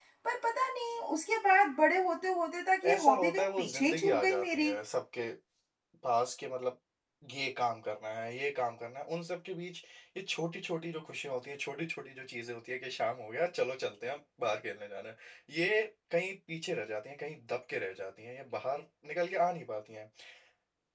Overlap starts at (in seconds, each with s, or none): 2.8 s